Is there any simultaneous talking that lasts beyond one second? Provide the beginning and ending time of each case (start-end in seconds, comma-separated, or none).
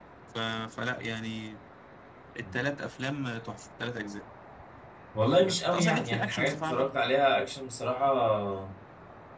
5.4-6.9